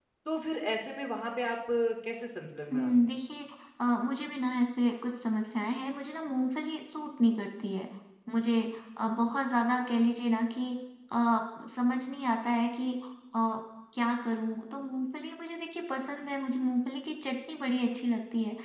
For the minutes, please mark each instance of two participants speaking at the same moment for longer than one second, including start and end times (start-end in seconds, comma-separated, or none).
none